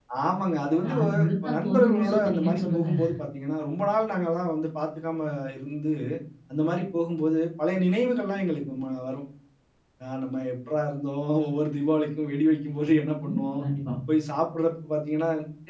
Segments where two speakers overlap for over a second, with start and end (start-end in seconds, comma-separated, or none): 0.8-2.9